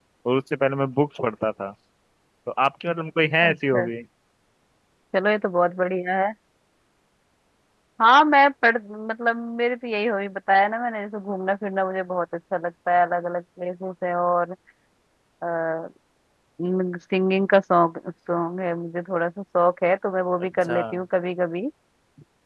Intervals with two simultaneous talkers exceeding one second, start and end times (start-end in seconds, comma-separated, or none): none